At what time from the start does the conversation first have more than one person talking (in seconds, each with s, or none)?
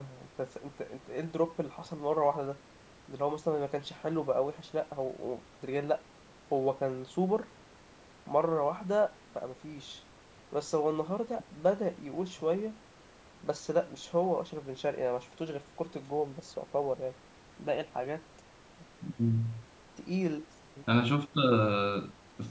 none